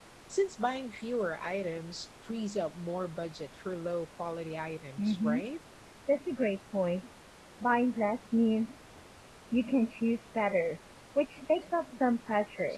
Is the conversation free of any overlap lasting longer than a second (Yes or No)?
Yes